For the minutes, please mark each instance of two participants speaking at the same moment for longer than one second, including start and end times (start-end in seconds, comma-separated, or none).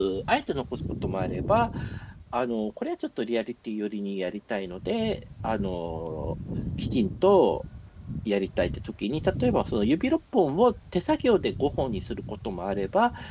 none